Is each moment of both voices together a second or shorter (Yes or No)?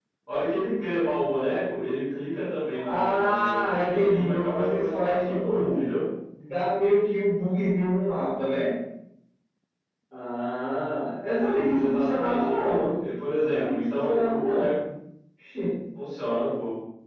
No